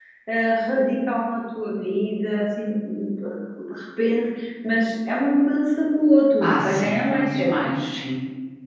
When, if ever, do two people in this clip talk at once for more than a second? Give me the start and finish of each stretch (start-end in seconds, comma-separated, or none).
6.4-7.7